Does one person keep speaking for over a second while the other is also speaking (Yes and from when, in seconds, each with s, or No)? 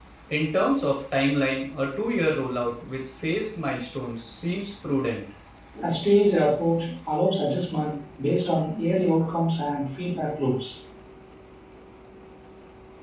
No